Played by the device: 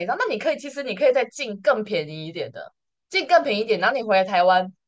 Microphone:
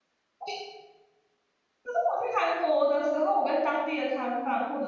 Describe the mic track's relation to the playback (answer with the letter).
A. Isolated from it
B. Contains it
A